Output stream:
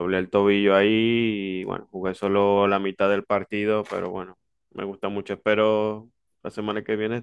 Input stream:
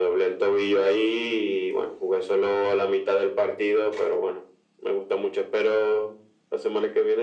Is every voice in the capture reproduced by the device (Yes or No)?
Yes